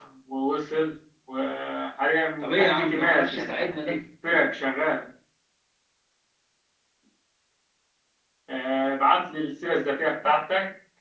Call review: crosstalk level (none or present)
present